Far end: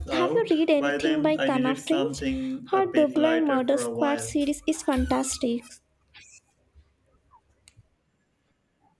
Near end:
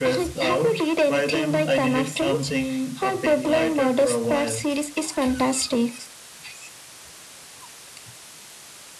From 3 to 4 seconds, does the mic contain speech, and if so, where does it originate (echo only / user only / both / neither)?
echo only